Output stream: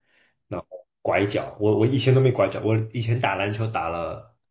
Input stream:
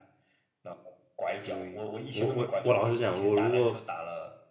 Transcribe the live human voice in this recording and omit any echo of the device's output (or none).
可以。我我我老实讲，我如果